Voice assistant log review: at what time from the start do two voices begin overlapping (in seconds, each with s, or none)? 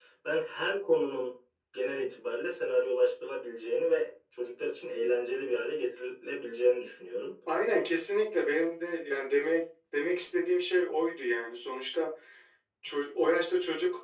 none